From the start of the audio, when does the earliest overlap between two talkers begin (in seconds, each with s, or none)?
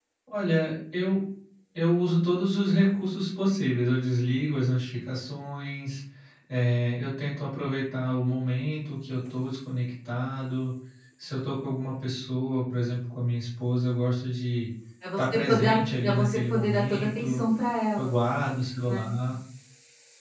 15.2 s